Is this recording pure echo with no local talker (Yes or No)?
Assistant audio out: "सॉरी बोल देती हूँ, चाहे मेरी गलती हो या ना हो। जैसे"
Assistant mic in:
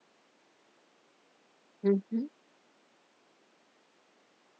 No